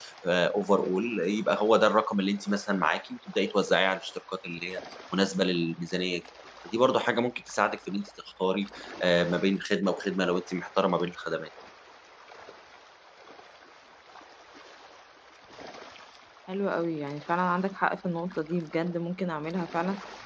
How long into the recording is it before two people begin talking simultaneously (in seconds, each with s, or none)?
none